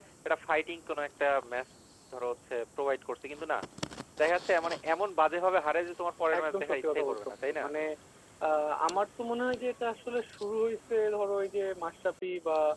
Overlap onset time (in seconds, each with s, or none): 6.3 s